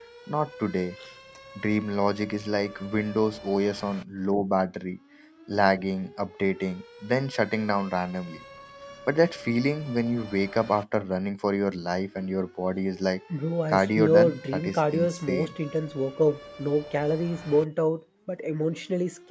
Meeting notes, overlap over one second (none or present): present